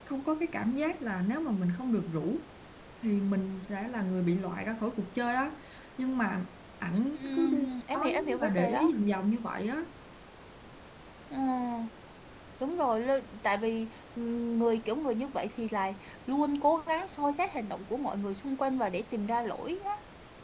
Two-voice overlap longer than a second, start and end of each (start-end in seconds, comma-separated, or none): 7.1-8.9